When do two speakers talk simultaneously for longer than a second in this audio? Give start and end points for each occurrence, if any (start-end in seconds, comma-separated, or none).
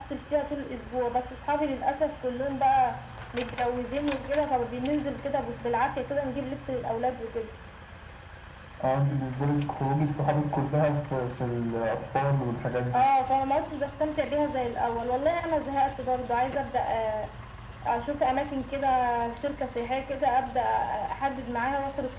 none